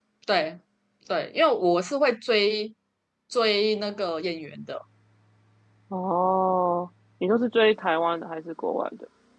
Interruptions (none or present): none